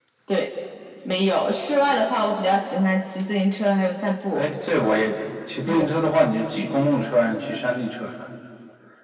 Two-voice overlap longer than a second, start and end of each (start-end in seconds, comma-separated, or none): none